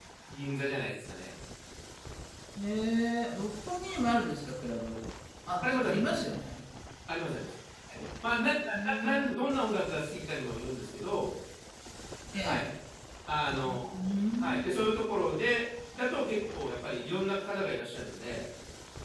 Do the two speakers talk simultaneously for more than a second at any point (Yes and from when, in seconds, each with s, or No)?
No